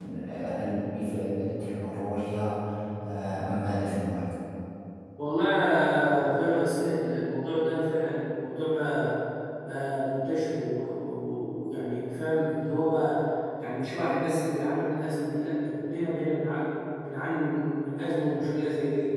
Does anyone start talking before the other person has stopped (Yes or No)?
No